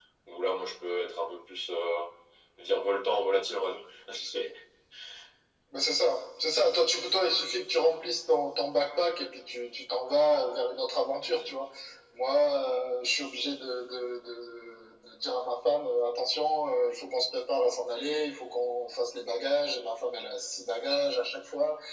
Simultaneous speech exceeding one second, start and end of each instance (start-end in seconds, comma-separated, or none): none